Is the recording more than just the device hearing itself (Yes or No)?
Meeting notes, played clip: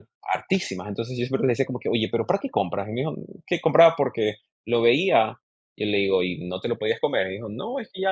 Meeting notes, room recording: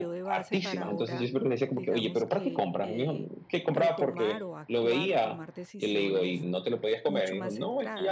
Yes